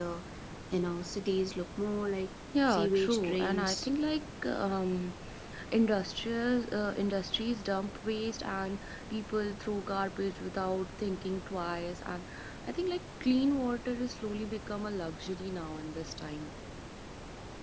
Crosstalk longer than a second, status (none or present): present